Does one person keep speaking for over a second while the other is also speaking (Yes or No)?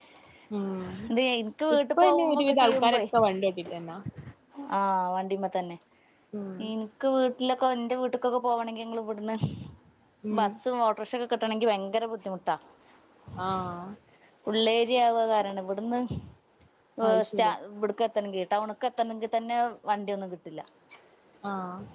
Yes